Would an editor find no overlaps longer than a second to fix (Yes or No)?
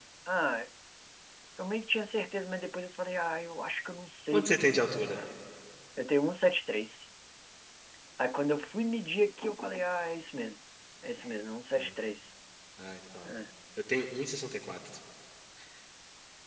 Yes